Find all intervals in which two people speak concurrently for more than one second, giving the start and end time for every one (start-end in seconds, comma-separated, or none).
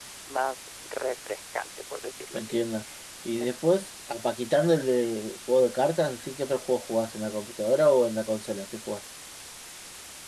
none